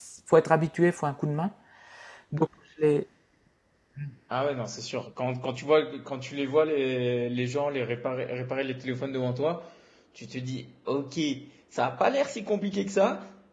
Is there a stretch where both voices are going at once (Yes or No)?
No